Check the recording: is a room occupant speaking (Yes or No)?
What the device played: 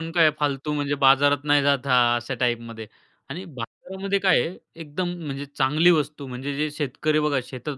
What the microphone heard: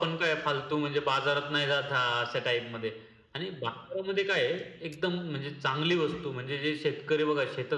No